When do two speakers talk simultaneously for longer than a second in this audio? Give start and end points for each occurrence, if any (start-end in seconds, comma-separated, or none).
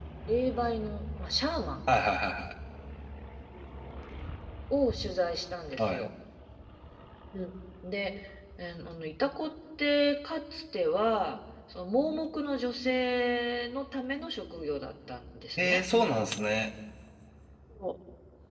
none